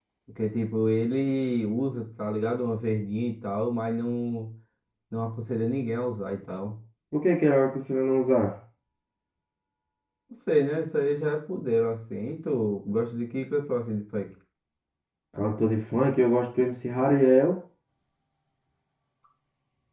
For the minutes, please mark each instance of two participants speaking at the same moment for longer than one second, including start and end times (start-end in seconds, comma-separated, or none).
none